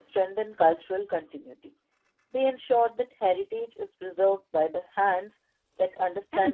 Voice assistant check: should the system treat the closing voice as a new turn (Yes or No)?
Yes